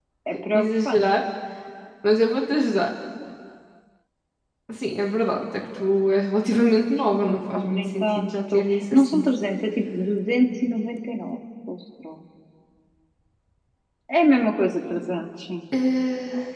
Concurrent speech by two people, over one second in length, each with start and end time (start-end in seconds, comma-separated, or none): 7.2-9.2